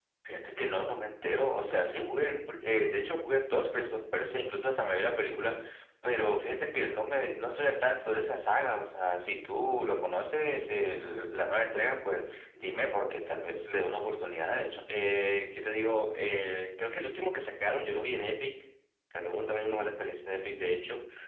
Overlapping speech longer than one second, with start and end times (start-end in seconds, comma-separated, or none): none